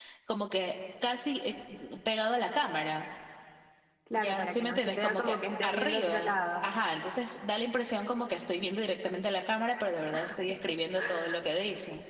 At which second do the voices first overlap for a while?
4.2 s

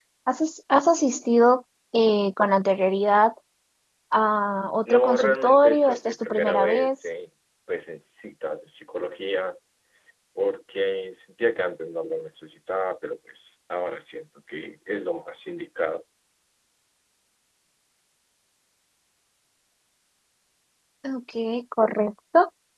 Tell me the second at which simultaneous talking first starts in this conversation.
4.8 s

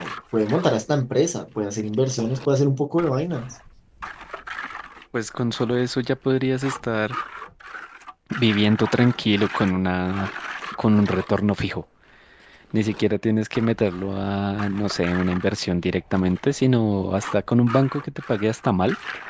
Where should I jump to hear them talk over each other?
none

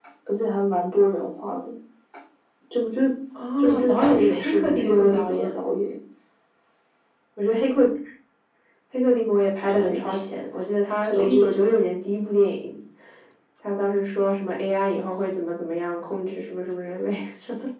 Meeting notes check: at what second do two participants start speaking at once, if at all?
3.6 s

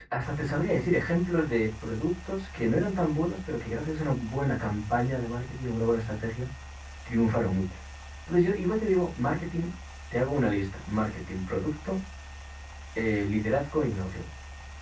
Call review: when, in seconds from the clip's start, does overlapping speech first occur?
none

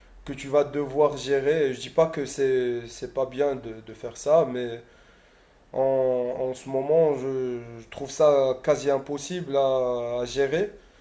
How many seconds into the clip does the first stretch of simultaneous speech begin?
none

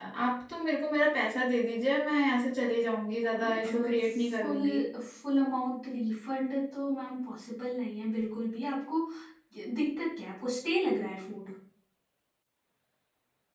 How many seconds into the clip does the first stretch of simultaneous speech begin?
3.1 s

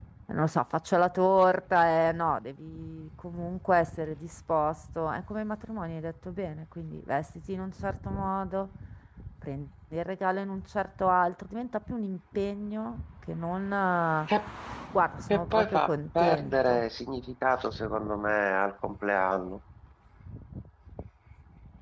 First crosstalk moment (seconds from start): 15.3 s

